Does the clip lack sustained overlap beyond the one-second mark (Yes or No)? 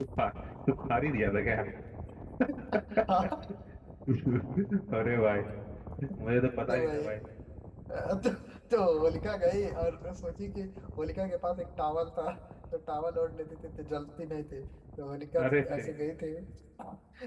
Yes